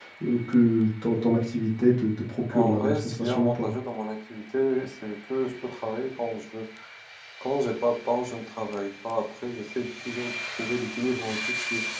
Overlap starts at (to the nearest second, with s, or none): 3 s